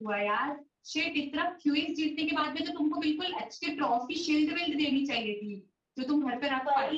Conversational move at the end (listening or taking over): taking over